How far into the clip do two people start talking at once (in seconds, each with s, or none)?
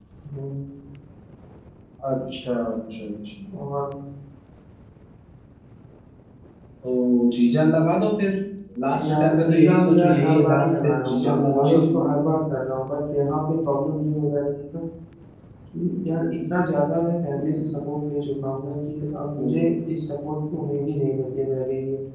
9.0 s